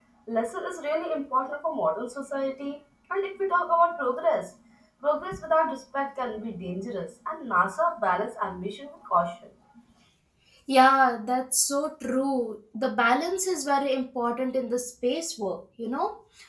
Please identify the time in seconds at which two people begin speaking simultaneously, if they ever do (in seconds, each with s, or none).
none